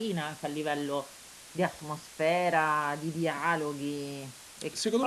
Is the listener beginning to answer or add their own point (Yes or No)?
Yes